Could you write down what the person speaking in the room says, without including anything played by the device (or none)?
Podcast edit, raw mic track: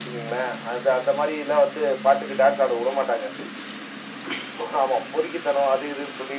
none